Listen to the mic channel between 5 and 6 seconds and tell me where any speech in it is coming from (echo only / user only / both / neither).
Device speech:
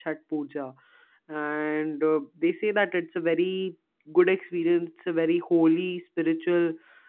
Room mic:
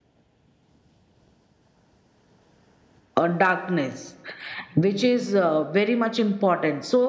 user only